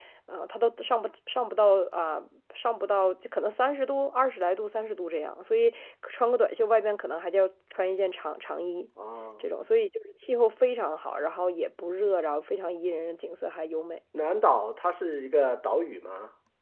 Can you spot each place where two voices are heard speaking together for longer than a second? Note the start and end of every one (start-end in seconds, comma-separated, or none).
none